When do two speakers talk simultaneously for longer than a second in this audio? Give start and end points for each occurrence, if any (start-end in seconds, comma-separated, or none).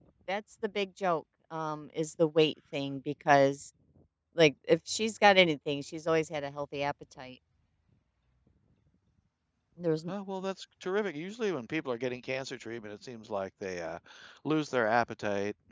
none